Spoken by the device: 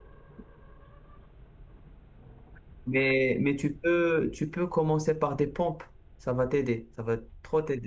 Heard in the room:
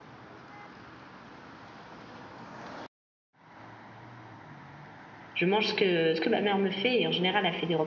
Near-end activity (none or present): present